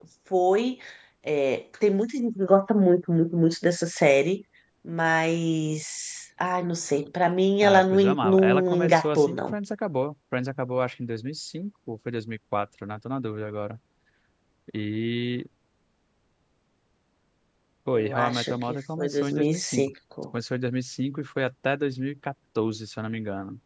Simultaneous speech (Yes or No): Yes